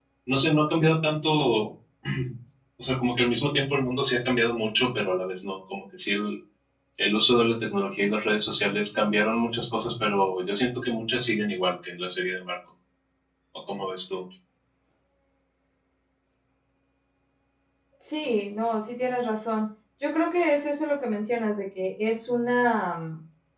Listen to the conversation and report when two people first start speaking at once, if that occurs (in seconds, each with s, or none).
none